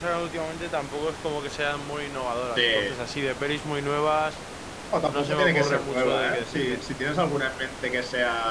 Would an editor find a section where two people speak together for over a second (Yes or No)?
Yes